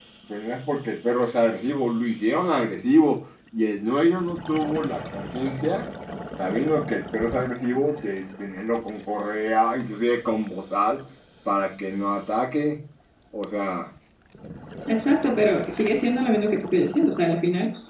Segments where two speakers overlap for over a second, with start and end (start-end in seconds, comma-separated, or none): none